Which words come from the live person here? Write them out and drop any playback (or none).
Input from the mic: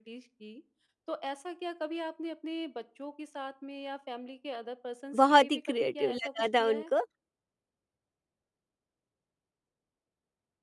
बहुत ही क्रिएटिव लगा था उनको।